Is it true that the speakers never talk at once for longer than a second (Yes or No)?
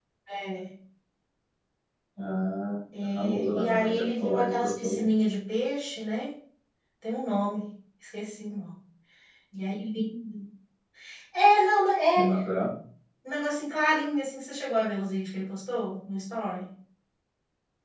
No